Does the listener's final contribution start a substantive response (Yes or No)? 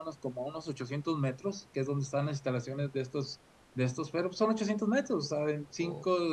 No